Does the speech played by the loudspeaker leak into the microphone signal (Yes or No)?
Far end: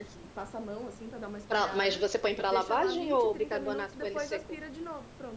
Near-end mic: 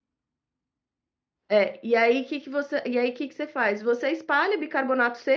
No